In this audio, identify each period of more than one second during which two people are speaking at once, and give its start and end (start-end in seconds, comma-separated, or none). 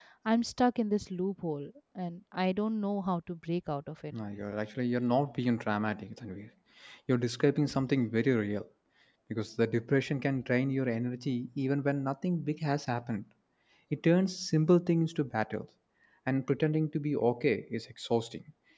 none